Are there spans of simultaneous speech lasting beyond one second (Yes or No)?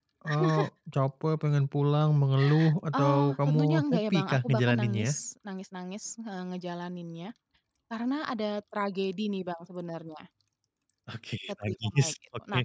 Yes